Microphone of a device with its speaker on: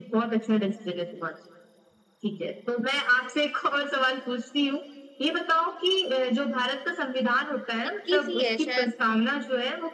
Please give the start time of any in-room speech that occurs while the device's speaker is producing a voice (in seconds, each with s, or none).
7.9 s